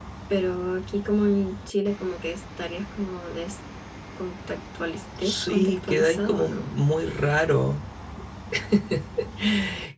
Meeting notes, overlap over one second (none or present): present